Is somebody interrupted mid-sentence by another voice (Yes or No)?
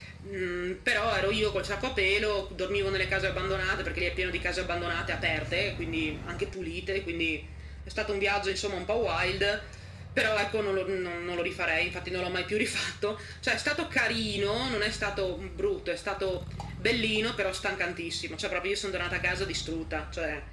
No